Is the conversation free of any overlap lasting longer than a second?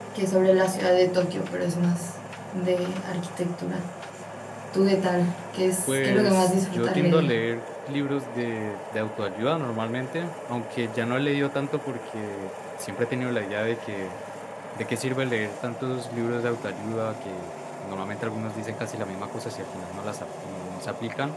No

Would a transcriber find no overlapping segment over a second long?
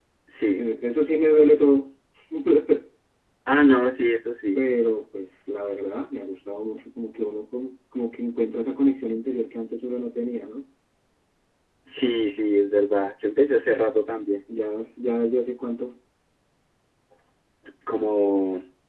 Yes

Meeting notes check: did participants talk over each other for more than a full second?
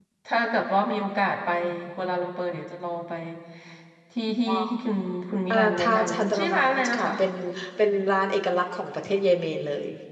Yes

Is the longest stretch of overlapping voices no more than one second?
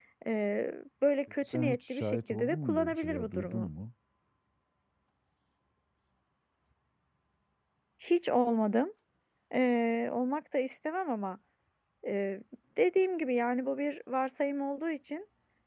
No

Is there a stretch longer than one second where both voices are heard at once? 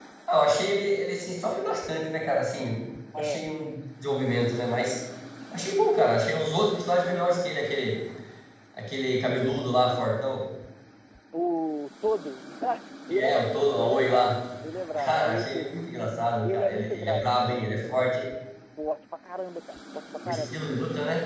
Yes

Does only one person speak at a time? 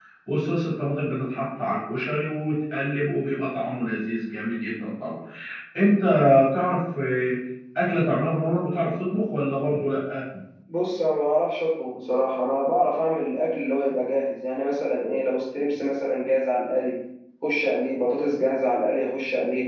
Yes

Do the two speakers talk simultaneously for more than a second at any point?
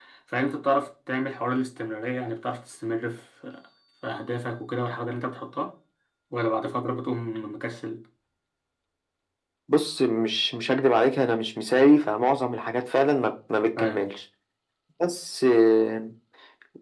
No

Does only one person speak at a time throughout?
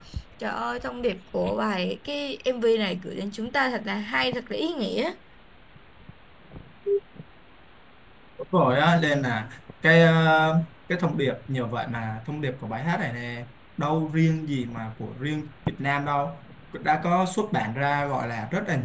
Yes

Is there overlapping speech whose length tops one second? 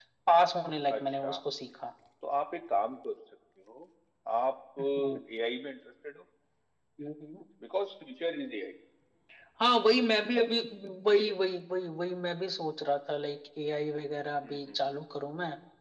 No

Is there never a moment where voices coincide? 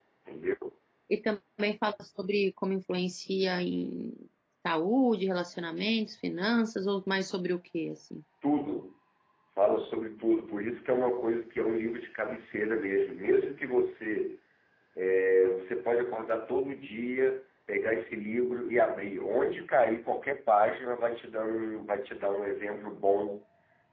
Yes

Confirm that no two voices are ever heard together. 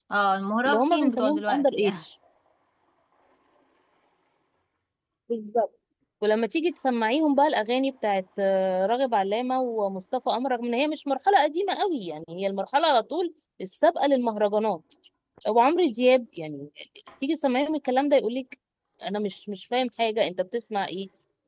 No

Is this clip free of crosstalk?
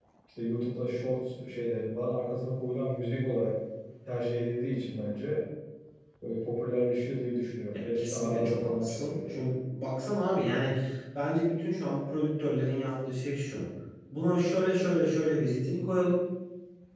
No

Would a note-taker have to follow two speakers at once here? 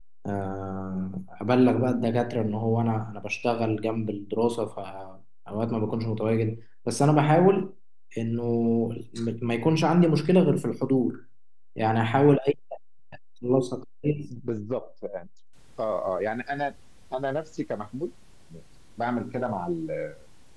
No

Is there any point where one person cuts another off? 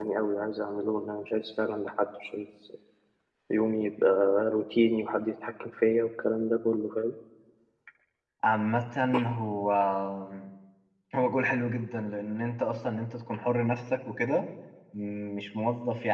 No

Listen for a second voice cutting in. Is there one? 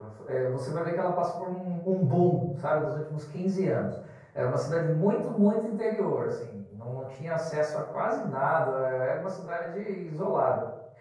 No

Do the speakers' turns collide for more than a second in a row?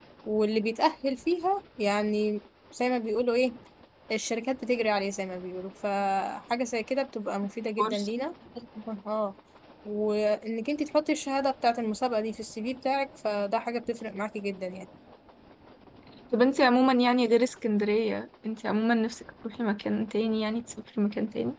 No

